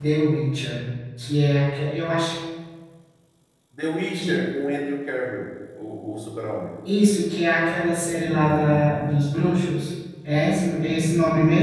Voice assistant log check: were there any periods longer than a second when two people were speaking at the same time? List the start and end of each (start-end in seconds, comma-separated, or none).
none